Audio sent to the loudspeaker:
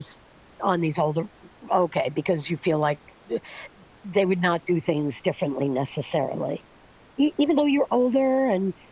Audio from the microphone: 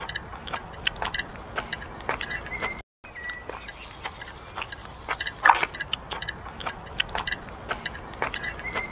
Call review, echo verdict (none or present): none